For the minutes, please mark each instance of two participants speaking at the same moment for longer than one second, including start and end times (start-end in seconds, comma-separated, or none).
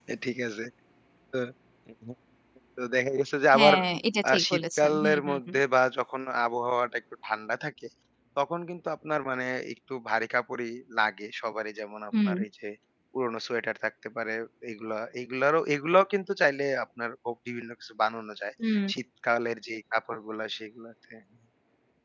4.3-5.5